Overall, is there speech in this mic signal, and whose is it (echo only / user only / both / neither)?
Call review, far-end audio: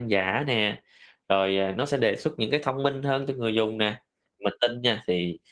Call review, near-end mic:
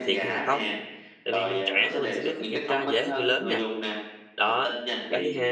both